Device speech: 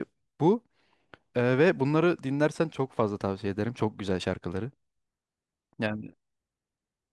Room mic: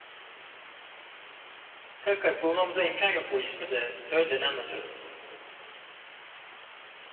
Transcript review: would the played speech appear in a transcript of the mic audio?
No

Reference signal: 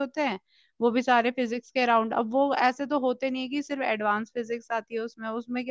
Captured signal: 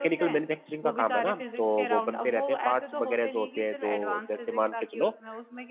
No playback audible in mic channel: No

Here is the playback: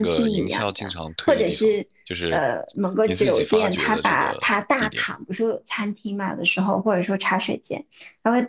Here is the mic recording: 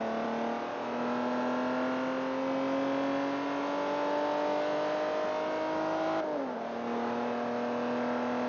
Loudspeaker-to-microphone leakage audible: No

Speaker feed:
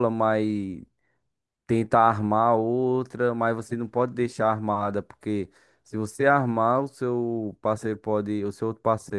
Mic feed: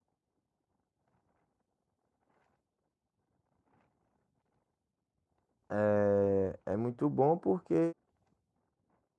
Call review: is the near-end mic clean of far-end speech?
Yes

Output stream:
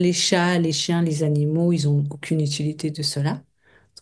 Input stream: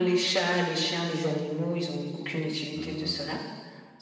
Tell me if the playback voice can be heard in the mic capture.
Yes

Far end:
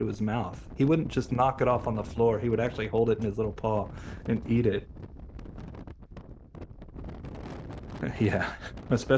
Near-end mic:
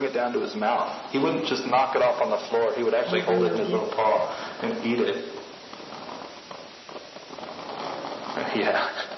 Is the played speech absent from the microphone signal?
No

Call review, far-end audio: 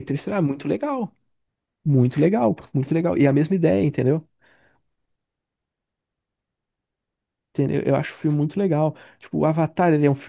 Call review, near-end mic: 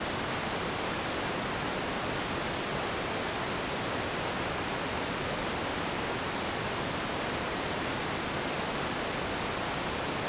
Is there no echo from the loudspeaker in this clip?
Yes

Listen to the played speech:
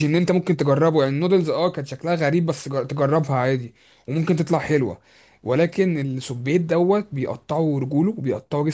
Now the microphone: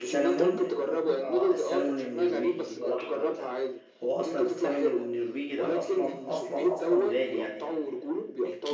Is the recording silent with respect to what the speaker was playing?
No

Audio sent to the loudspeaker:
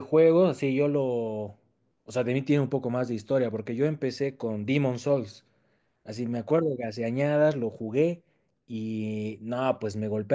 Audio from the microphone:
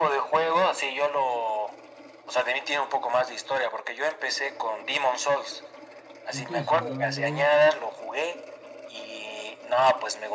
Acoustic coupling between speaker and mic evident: Yes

